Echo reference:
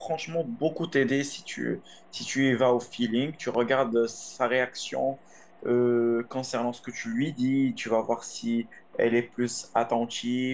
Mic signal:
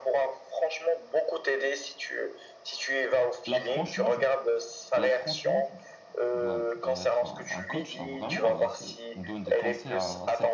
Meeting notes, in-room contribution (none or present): present